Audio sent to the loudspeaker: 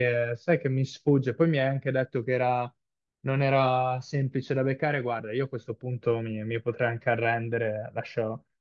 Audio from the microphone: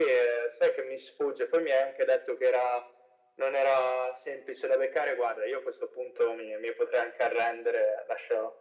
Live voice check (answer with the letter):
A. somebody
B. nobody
B